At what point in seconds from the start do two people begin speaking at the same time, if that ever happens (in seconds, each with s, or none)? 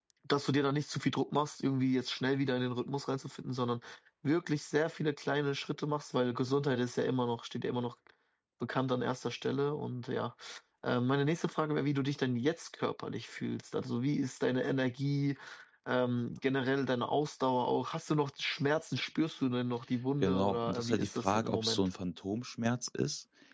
20.2 s